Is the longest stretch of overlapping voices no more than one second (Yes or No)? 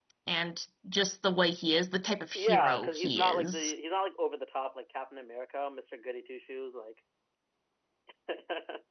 No